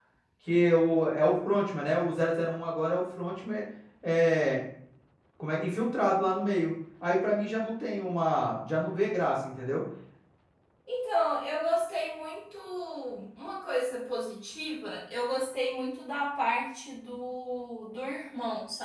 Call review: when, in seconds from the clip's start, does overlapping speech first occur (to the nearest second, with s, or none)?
none